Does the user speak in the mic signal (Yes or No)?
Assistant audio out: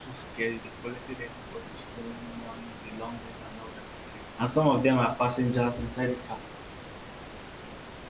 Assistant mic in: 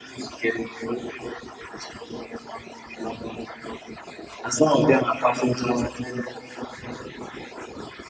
No